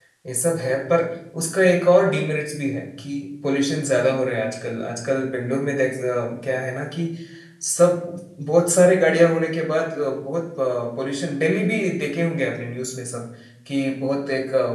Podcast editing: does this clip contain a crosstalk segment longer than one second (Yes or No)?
No